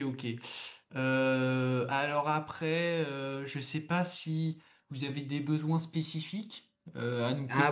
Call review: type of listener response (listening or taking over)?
taking over